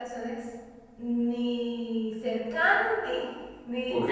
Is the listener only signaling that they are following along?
No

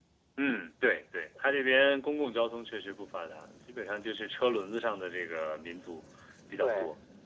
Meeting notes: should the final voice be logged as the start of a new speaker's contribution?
Yes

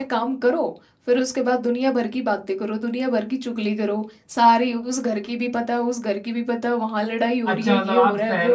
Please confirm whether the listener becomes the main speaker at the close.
Yes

